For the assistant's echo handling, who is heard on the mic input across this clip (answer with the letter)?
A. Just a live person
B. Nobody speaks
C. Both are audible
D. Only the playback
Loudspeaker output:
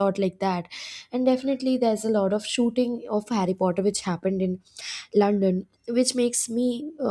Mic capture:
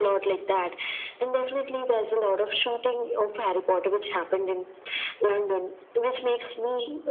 D